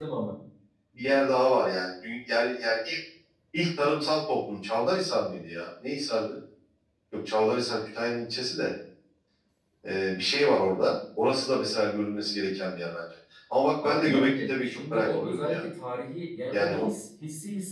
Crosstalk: present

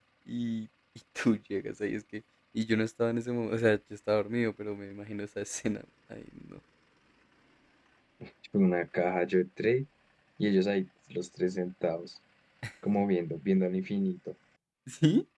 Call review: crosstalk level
none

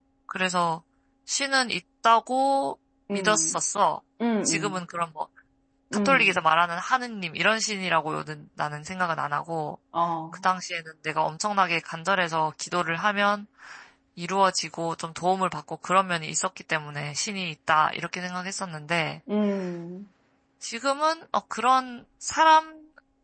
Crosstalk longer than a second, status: none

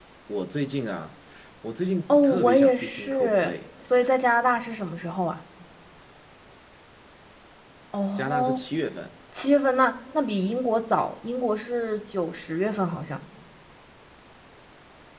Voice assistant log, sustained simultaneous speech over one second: present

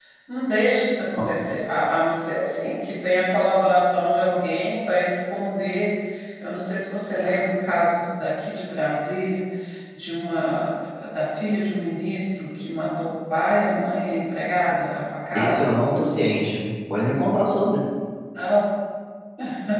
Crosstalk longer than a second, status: none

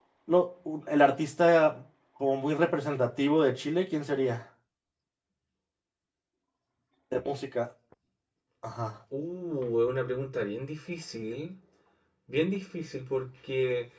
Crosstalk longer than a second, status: none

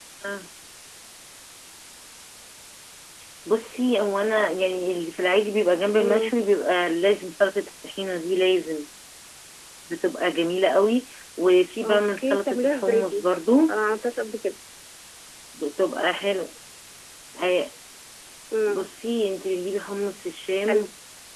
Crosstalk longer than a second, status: present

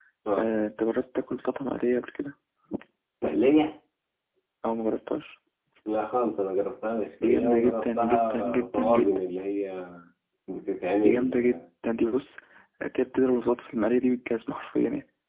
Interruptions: present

